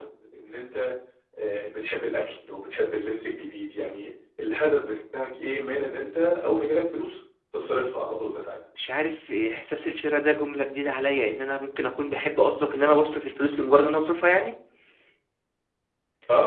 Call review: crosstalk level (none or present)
none